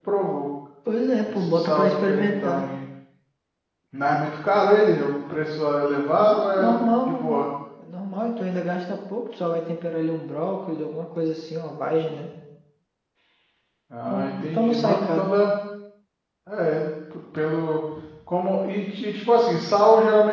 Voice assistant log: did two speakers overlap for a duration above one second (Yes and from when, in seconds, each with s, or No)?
Yes, from 1.3 s